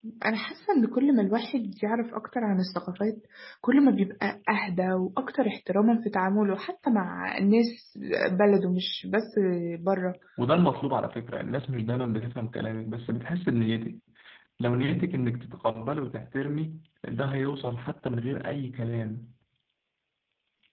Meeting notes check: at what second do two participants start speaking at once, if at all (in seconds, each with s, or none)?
none